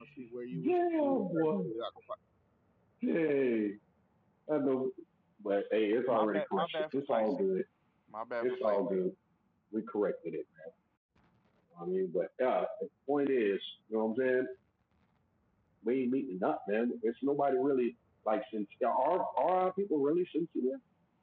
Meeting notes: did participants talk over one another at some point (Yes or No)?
Yes